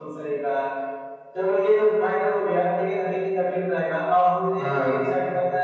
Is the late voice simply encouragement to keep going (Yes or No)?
Yes